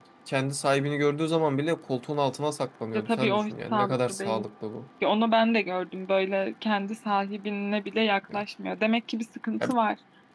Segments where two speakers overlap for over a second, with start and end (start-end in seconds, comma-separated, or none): 2.9-4.4